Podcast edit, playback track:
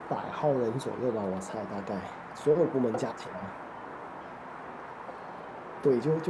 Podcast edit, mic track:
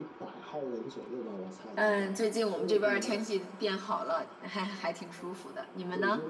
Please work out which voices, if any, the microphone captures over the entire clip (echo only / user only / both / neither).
both